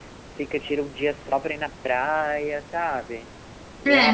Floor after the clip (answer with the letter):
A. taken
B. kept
A